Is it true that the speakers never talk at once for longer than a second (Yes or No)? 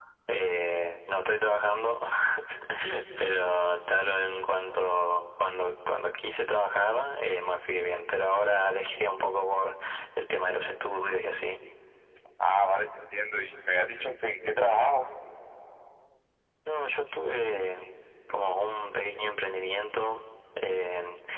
Yes